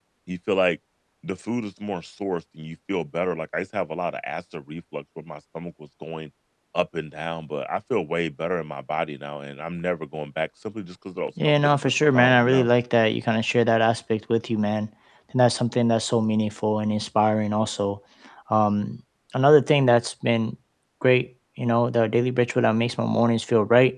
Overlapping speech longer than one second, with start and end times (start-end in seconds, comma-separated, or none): 11.4-12.7